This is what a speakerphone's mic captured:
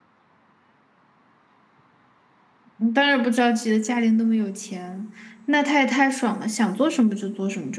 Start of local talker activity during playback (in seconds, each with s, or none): 2.8 s